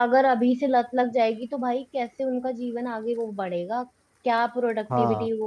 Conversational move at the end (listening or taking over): listening